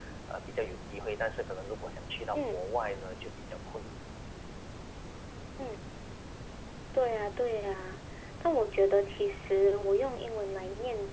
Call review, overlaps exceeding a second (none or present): none